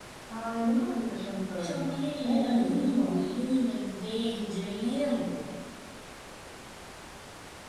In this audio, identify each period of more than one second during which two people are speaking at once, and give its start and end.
1.6-3.2

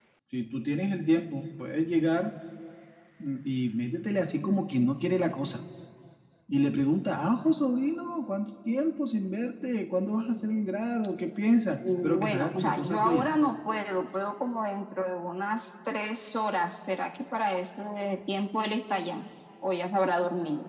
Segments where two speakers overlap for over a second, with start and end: 12.0-13.2

